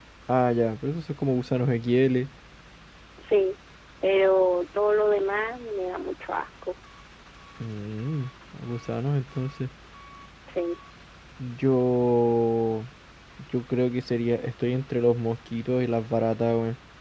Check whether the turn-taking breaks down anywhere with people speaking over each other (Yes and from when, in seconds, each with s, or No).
No